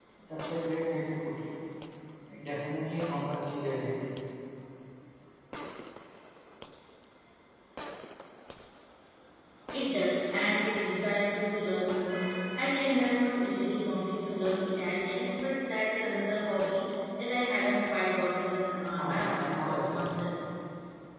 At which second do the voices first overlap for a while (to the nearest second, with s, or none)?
19 s